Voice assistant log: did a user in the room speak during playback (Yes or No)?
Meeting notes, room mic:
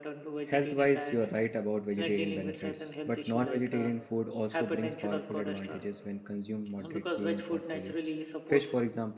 Yes